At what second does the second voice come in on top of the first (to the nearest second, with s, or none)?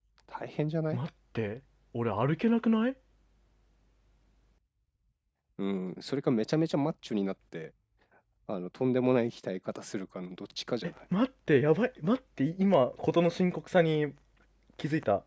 none